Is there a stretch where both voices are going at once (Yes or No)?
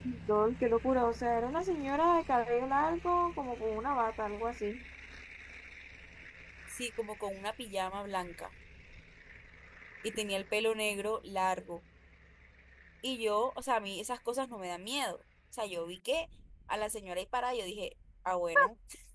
No